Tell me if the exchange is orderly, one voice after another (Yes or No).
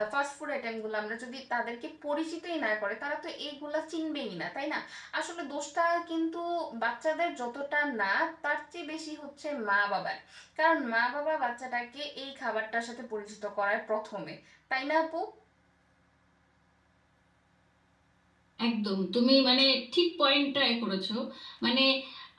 Yes